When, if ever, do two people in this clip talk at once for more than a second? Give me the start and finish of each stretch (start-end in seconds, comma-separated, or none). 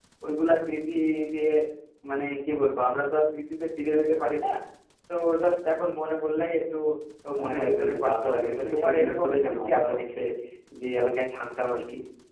7.4-10.0